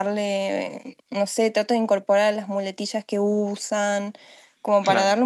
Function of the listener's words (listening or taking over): listening